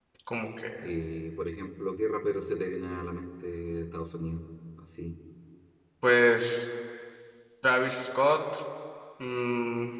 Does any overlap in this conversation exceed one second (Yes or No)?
No